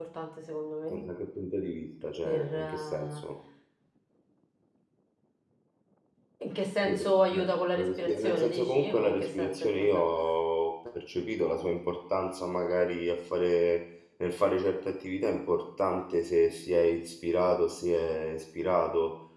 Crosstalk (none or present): present